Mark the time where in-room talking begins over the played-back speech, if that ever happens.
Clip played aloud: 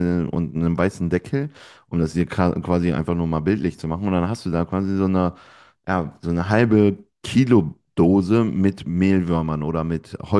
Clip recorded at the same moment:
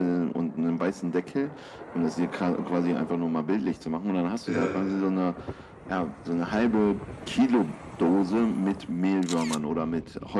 4.4 s

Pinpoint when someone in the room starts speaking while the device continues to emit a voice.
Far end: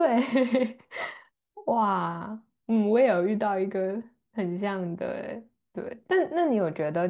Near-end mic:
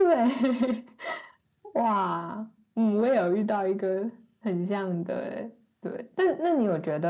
none

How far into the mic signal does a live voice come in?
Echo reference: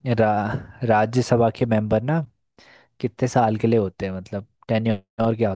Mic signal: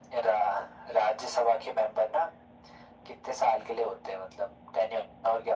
none

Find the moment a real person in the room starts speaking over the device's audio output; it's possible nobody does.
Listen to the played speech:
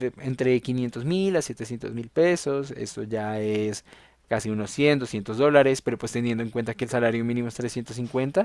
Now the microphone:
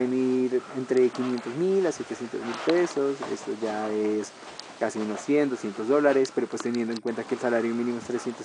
none

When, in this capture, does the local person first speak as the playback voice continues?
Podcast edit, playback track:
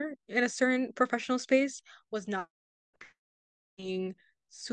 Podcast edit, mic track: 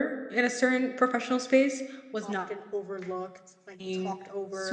2.2 s

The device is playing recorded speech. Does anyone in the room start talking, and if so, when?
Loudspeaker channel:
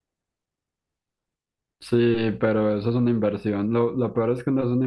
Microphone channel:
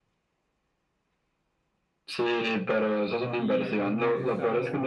3.3 s

